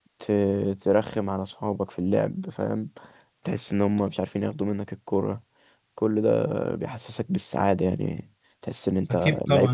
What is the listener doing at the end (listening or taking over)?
taking over